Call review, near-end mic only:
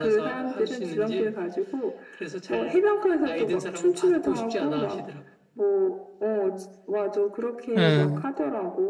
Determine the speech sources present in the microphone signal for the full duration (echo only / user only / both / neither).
both